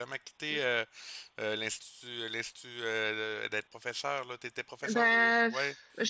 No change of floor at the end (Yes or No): No